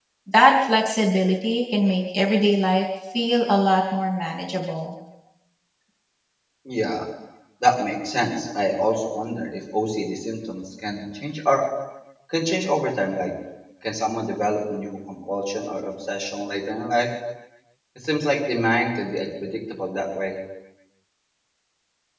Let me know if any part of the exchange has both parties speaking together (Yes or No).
No